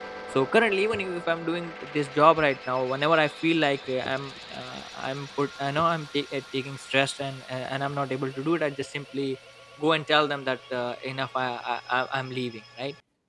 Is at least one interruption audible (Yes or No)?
No